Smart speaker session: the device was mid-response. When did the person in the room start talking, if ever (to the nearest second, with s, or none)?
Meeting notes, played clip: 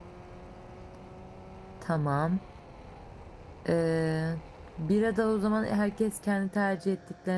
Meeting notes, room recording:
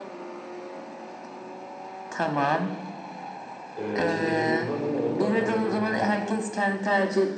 4 s